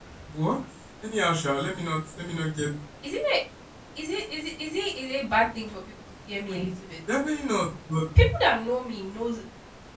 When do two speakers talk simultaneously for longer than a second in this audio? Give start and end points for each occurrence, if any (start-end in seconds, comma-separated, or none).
none